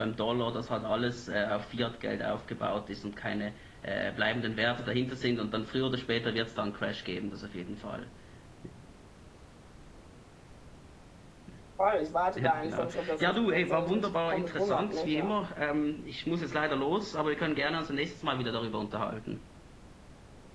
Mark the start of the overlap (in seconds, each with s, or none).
12.4 s